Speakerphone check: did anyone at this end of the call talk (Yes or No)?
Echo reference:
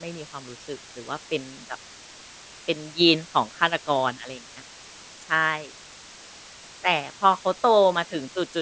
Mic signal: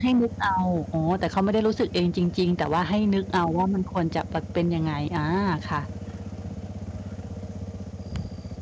Yes